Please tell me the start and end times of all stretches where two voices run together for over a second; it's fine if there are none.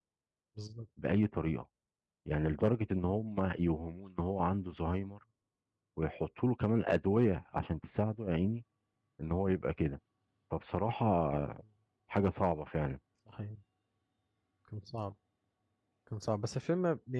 none

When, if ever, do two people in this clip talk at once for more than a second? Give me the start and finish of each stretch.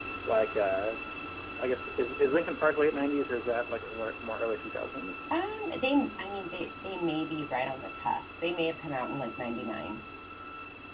none

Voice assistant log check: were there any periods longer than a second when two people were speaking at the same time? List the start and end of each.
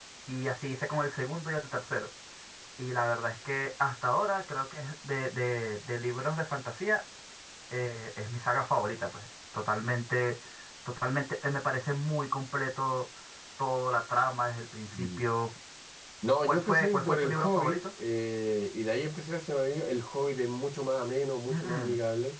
16.5-17.8

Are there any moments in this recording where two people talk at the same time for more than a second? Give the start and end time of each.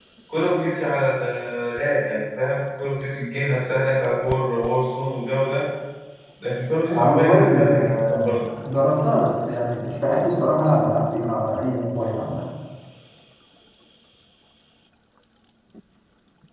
6.9-8.4

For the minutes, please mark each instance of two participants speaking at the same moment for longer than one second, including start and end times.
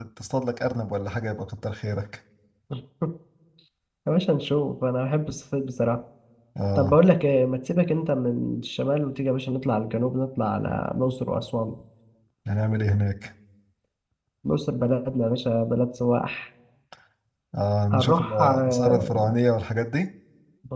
17.9-19.3

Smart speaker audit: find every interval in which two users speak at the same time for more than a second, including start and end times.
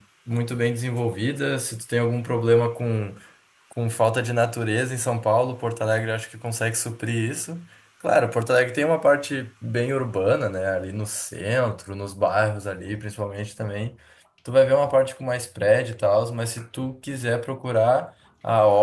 none

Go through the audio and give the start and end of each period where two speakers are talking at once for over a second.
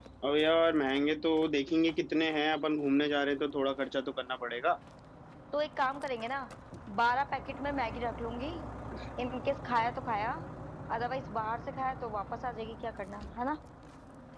none

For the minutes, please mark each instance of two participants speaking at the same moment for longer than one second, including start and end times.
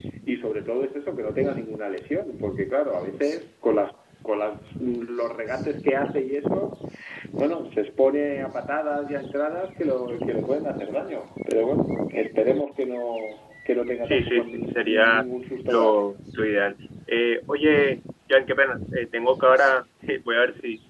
14.0-15.2

